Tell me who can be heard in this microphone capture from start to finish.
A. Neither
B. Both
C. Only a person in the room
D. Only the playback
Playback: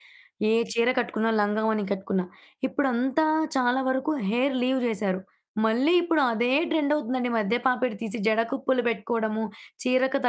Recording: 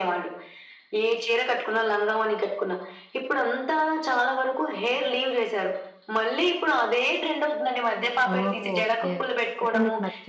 B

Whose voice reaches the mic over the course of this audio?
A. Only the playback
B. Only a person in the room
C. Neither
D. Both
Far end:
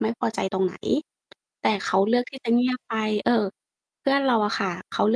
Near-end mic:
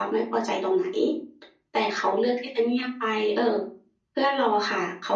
A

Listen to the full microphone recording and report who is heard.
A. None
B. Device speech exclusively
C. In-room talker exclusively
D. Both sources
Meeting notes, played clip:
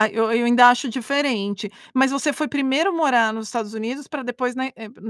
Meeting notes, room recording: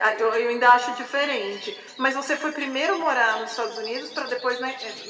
B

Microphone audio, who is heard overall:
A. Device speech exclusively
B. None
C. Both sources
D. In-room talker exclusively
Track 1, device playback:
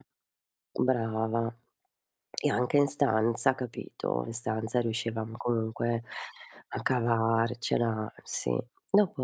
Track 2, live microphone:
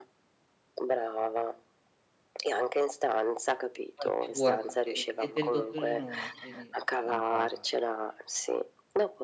C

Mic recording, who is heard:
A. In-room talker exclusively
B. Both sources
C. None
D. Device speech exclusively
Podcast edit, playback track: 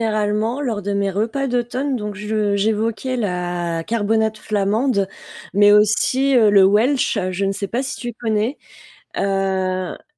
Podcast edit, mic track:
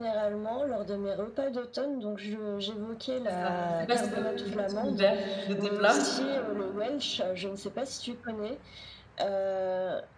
B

